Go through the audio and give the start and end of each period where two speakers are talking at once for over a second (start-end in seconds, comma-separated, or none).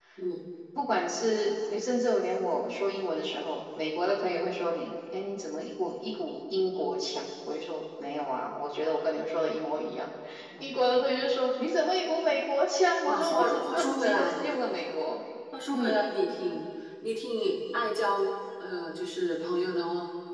13.1-14.4